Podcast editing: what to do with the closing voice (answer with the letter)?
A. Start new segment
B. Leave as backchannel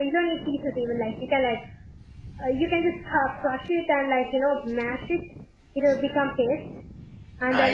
B